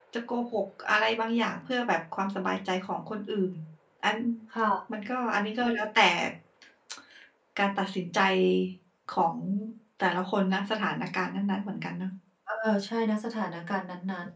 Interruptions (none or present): none